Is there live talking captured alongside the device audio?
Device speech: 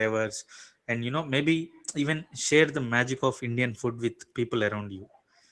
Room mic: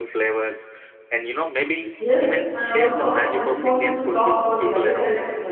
Yes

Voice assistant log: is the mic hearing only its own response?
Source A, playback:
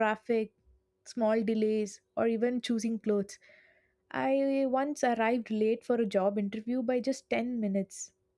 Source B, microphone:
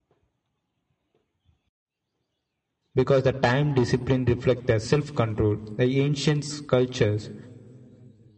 No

